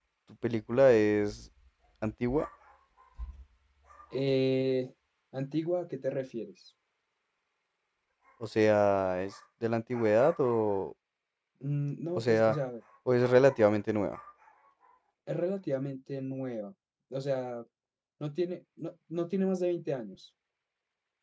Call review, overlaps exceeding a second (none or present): none